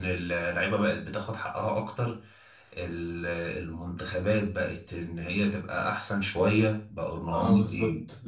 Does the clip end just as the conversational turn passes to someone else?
Yes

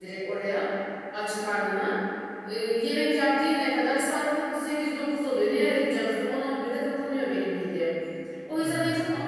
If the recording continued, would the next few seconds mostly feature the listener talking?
No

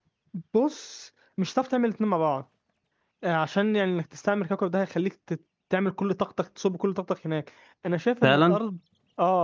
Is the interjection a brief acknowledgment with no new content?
Yes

